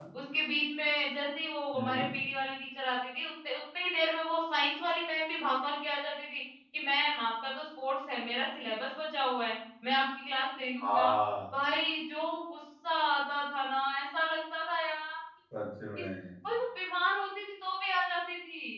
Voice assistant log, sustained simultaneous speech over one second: none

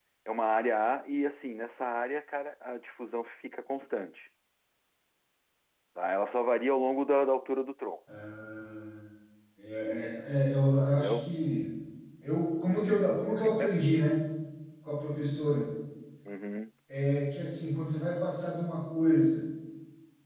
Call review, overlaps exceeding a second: none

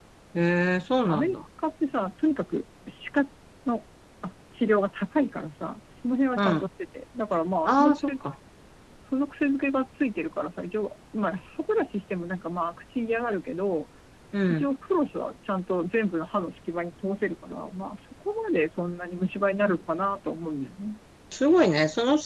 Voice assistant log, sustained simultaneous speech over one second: none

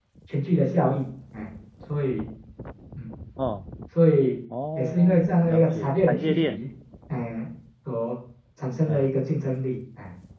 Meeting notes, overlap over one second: present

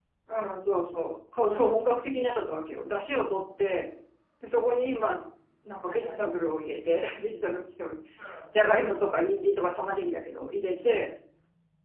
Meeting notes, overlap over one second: none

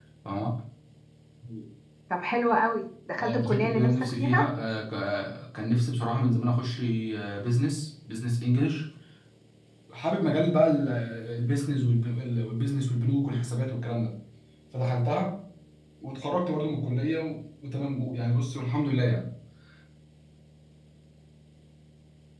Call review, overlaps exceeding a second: present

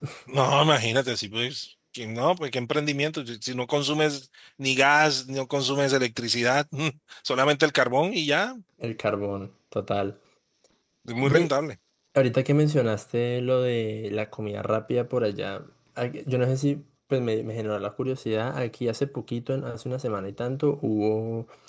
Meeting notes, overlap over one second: none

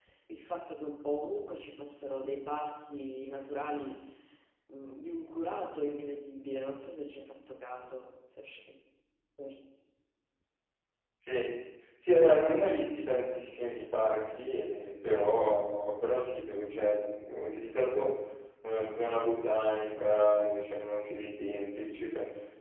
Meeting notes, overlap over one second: none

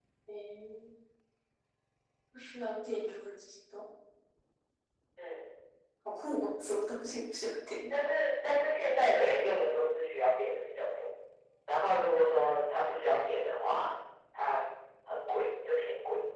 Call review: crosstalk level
none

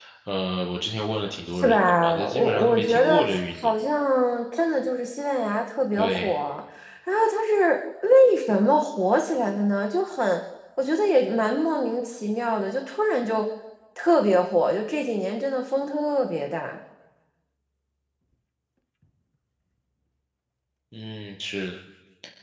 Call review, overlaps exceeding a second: present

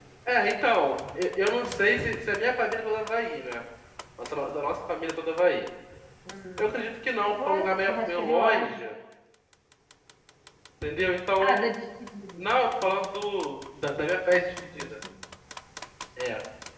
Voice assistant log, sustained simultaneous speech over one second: present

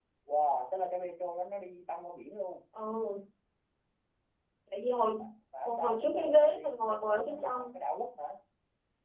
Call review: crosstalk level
present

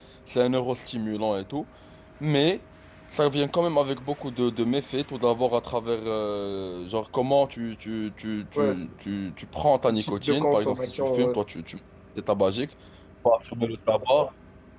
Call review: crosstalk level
present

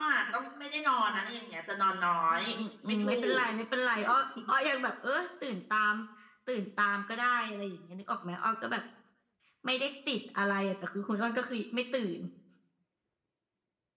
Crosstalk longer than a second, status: none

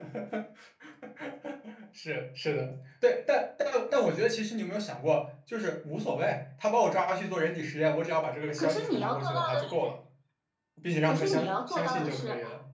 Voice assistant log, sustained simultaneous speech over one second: present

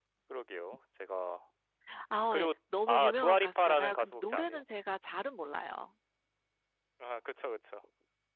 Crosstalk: present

